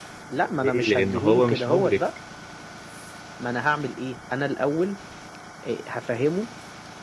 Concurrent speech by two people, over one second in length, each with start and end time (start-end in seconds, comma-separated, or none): 0.6-2.0